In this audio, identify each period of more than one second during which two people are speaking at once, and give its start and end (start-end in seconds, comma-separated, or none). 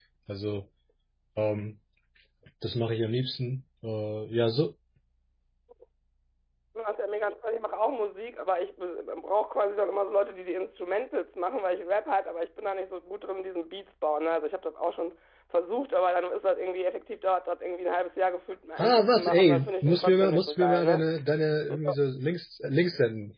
18.8-21.0